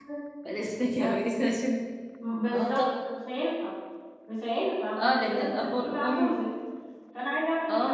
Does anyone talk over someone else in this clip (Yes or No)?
Yes